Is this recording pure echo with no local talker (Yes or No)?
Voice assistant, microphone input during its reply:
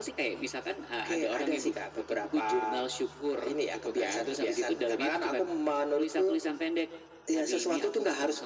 Yes